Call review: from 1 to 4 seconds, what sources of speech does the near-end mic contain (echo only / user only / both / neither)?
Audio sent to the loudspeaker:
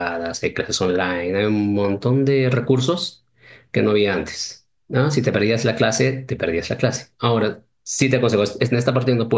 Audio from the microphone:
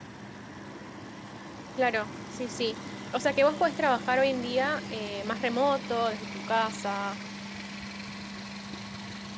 user only